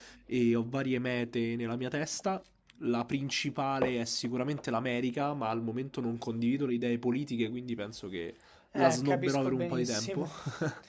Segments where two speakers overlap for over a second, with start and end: 8.8-10.3

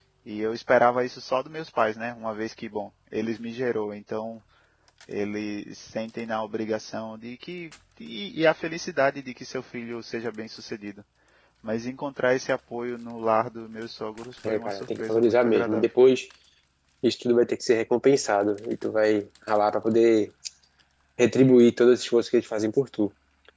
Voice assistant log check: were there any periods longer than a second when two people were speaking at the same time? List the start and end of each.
14.5-15.9

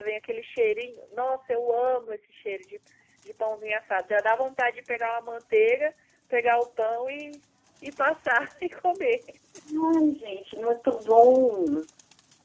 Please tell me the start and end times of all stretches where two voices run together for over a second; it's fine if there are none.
none

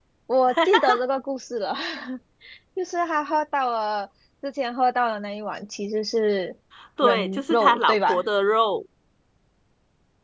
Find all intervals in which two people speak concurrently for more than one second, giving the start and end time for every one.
7.0-8.2

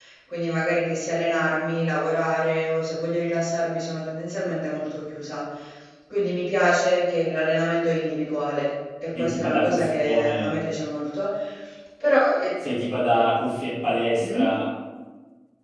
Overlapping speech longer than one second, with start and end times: 9.2-10.6

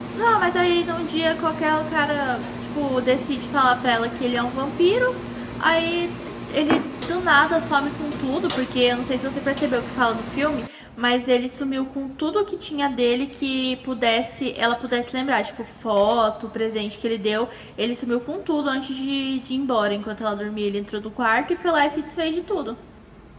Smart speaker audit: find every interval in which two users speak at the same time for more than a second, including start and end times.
none

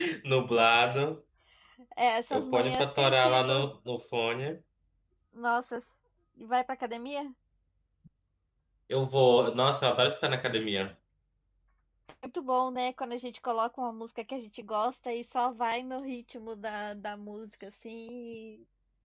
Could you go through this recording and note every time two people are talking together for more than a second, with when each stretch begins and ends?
2.3-3.7

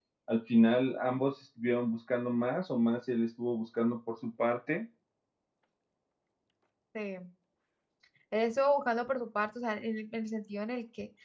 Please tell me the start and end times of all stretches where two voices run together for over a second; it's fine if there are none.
none

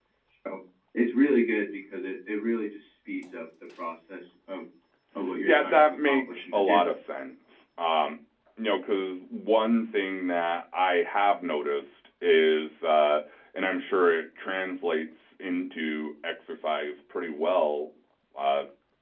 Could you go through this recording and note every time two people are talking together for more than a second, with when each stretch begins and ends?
5.4-6.8

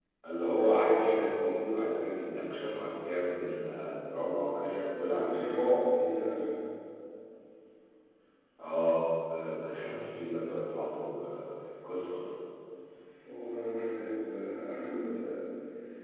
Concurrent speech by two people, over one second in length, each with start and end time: none

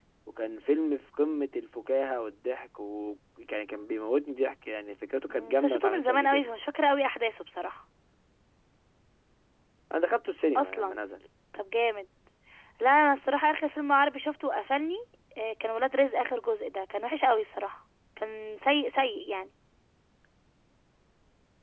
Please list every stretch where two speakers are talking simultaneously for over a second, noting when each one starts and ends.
5.3-6.5

